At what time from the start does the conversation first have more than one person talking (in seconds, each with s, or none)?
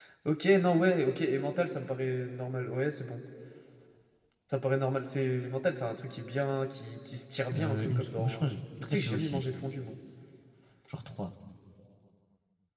7.5 s